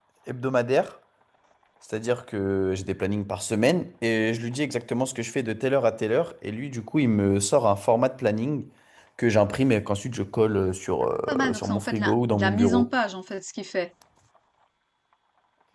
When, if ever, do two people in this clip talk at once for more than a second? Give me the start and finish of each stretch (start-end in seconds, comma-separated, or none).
11.3-12.9